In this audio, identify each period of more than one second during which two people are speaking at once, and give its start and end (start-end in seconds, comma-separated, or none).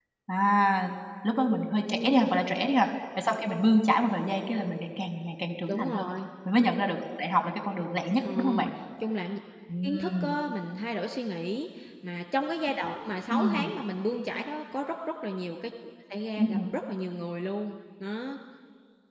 none